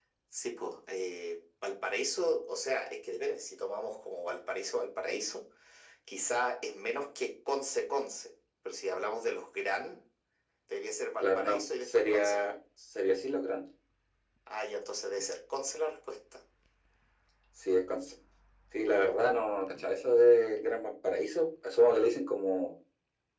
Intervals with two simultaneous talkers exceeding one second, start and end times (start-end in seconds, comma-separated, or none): 11.2-12.4